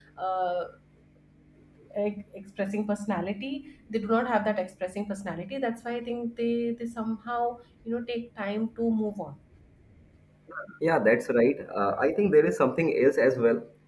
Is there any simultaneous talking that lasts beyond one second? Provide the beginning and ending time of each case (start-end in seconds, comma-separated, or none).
none